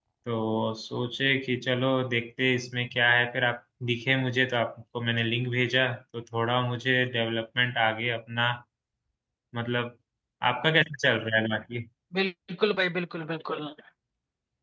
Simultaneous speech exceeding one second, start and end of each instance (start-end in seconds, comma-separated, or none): none